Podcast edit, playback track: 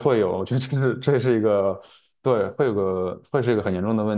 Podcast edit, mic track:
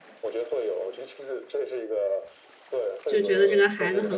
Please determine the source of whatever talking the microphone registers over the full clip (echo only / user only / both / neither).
both